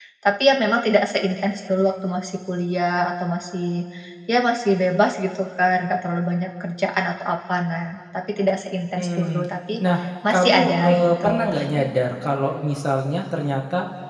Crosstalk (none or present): present